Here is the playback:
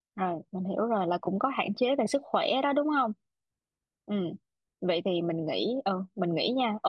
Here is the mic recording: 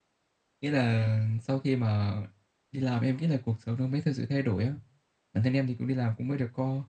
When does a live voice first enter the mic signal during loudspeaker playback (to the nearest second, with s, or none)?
1 s